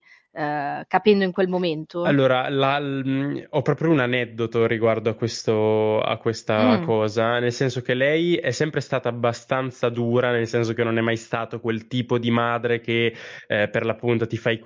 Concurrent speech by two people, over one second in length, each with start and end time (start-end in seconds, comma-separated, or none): none